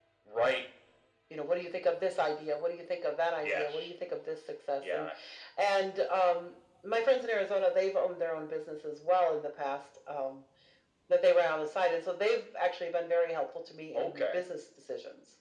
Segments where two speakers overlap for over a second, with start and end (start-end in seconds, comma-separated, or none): none